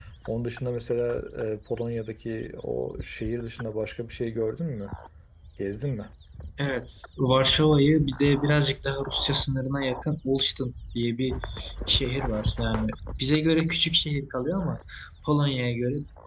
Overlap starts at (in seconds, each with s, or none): none